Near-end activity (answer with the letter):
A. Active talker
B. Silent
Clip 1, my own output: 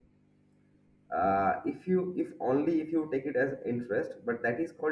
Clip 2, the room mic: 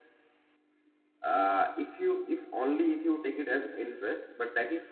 B